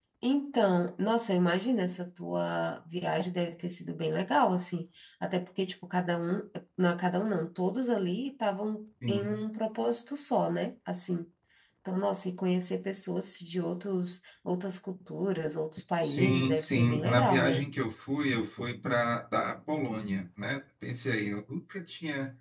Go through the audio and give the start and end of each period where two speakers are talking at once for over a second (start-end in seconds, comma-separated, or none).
16.0-17.7